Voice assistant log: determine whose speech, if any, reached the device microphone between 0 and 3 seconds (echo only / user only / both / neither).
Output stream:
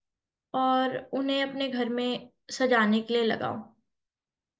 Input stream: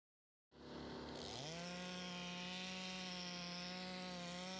neither